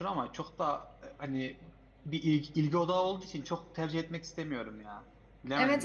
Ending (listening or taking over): taking over